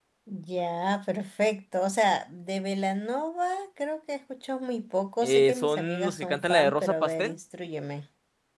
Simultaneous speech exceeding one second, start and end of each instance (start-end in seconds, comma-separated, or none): 5.2-7.3